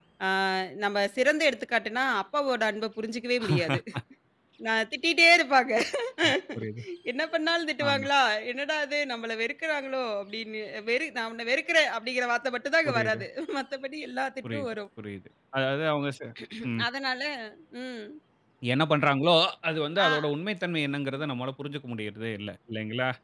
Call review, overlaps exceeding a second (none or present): none